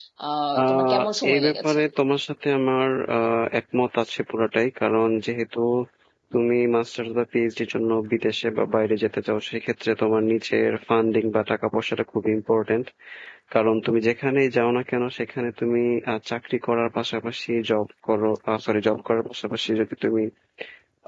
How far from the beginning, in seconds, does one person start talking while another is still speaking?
1 s

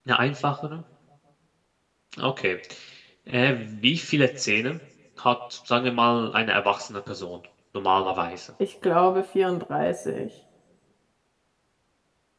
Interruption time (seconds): none

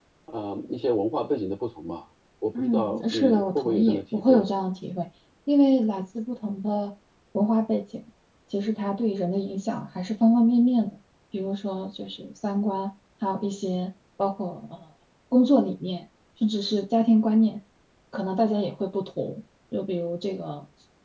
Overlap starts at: 3 s

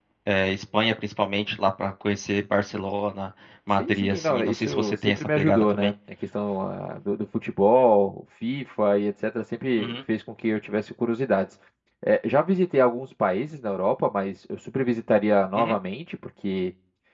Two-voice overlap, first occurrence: 4 s

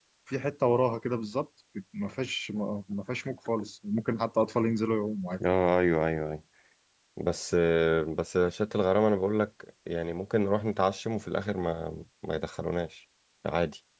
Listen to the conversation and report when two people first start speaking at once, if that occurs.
none

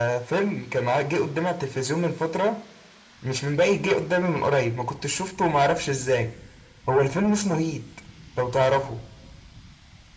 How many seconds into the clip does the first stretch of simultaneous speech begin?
none

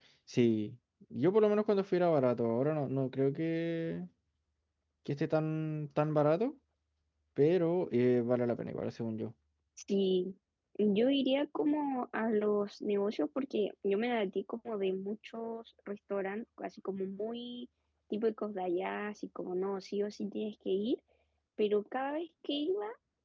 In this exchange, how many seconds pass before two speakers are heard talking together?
none

